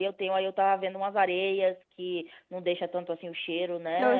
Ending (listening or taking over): taking over